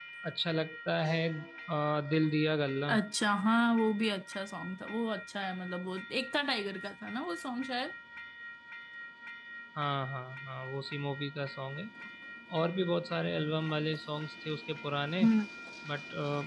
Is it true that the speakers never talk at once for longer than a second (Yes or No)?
Yes